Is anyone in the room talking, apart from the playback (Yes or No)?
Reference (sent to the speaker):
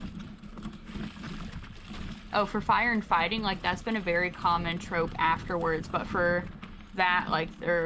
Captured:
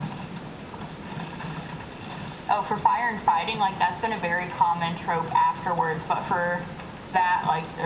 No